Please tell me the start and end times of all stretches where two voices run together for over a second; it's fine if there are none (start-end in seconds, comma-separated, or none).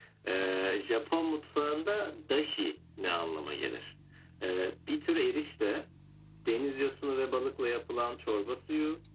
none